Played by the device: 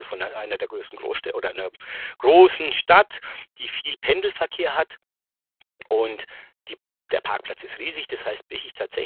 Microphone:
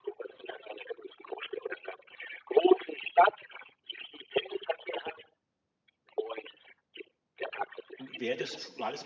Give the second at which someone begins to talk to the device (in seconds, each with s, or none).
8.0 s